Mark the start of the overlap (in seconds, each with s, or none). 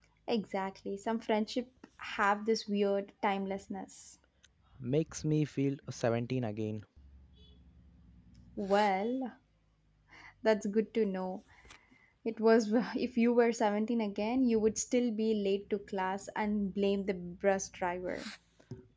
none